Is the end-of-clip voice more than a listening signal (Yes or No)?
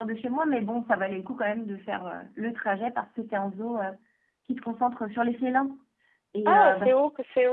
Yes